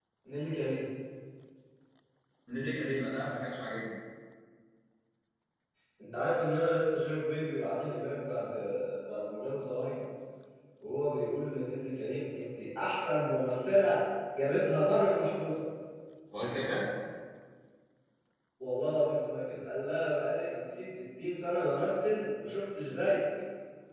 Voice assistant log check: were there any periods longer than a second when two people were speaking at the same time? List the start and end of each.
none

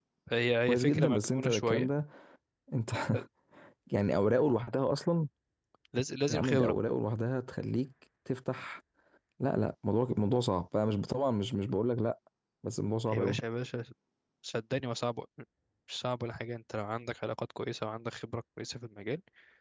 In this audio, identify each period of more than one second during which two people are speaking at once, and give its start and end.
0.7-1.9

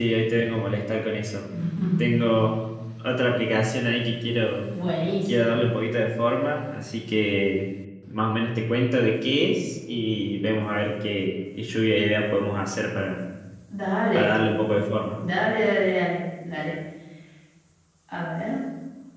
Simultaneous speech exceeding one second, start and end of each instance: none

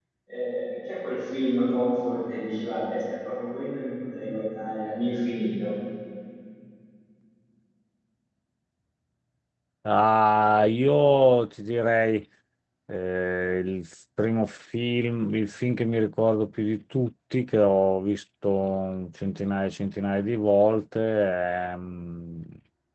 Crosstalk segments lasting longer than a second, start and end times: none

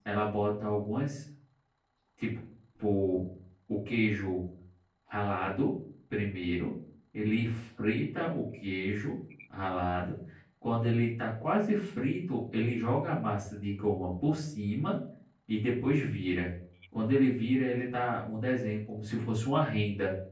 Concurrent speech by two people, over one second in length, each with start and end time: none

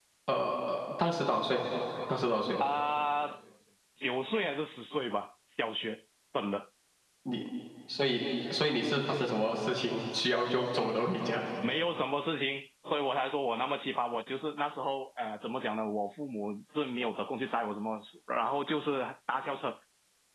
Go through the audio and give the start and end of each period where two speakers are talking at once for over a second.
none

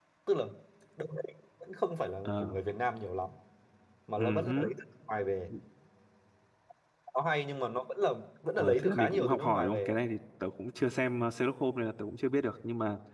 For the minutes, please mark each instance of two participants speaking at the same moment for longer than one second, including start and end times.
8.6-10.0

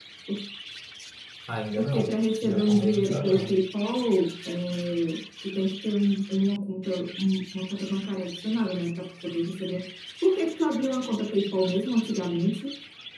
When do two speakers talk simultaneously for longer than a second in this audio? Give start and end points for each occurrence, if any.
1.8-3.5

